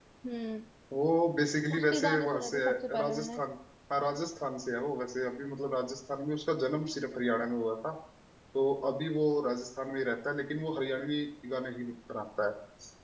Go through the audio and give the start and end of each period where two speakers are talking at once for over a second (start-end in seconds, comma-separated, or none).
1.8-3.4